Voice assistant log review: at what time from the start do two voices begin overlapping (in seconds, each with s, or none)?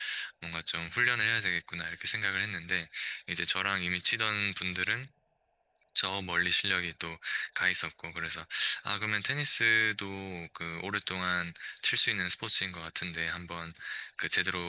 none